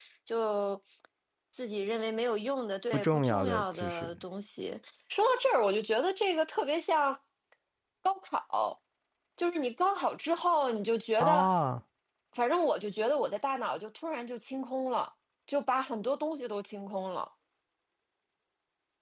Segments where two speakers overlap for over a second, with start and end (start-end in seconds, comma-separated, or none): 2.9-4.1